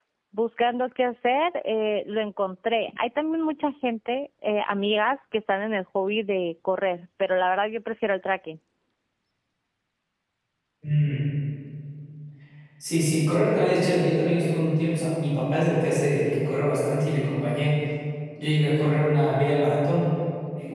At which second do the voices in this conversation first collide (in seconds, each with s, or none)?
none